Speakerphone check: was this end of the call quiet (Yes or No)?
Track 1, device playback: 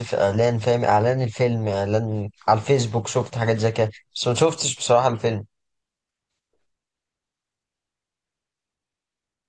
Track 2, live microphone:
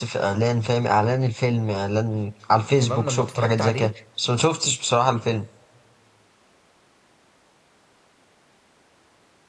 No